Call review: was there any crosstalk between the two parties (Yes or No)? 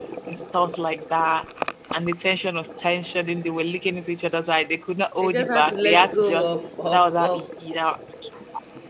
Yes